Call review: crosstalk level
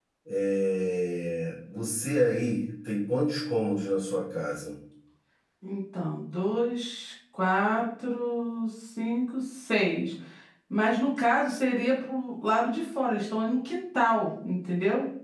none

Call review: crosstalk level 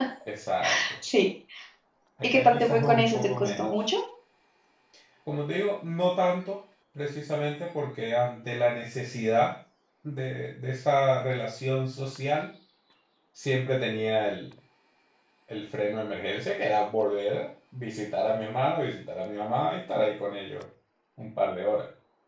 present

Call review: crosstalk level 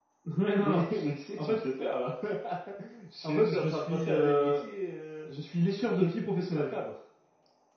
present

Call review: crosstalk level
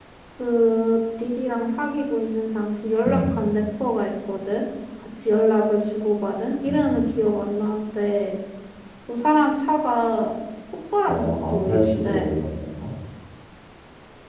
present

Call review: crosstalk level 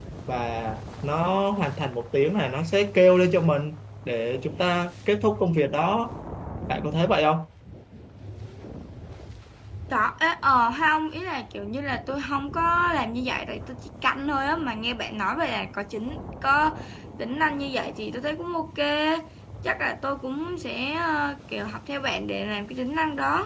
none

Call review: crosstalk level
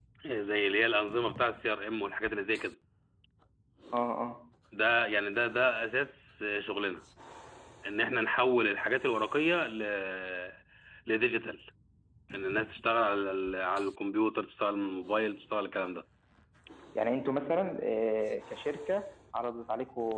none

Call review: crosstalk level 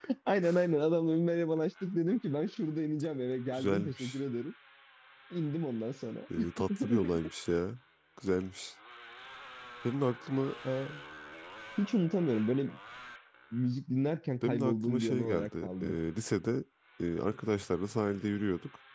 present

